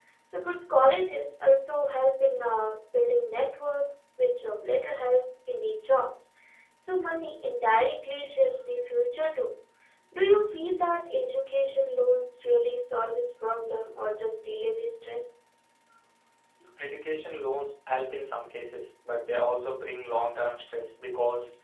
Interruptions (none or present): none